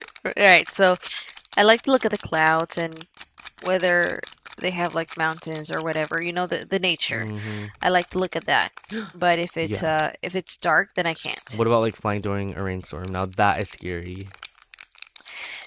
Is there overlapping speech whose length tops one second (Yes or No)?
No